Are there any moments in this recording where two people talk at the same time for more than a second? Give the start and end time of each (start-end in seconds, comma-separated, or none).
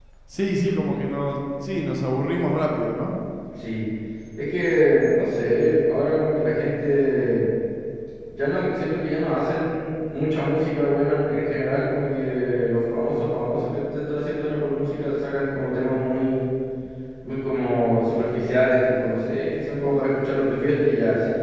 none